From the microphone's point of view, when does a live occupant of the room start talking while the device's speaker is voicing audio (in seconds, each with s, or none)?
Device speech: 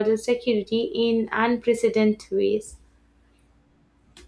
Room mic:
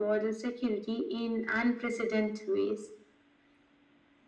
none